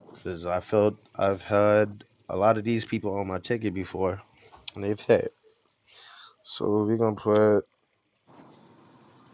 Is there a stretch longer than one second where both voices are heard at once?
No

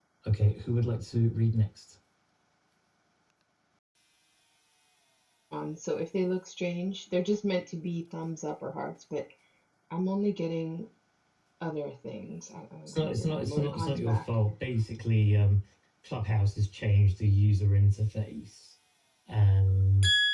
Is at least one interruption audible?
Yes, from 12.9 s

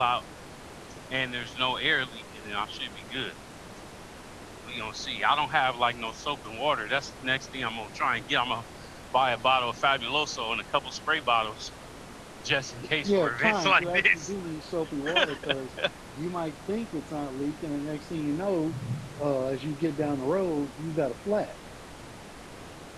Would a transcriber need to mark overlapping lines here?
Yes, from 13.0 s

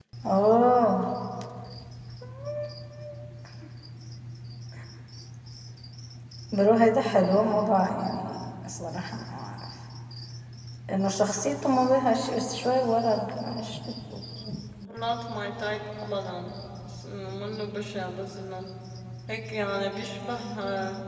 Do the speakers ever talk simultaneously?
No

